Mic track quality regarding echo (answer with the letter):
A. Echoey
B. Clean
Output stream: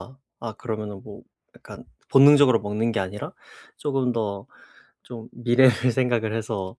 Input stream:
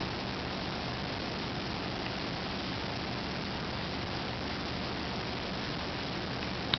B